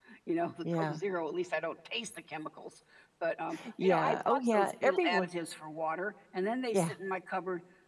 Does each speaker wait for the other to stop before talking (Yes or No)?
No